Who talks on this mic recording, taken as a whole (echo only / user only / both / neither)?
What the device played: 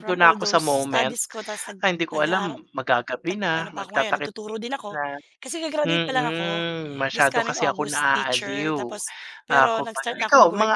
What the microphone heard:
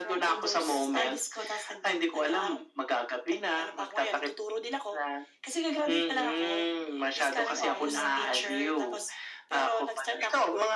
both